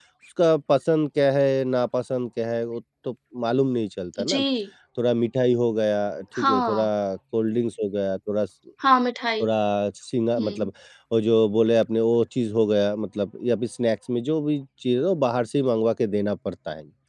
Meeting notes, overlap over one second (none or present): none